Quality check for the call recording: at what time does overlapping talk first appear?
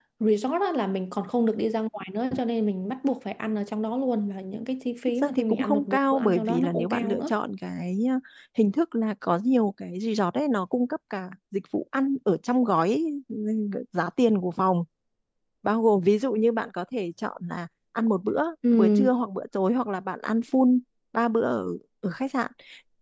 5.2 s

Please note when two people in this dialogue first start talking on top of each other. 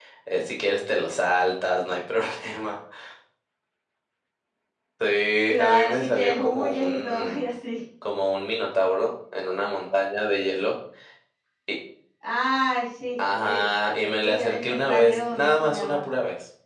5.5 s

